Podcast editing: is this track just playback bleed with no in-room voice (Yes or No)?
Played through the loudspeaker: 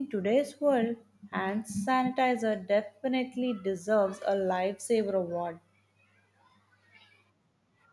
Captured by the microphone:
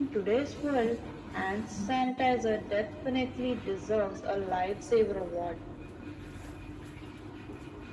Yes